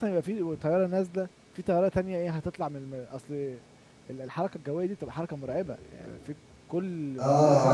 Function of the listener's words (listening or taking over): taking over